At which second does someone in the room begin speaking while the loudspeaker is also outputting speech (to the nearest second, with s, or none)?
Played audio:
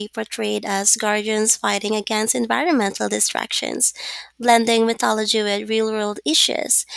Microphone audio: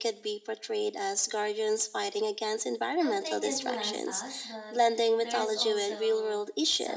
3 s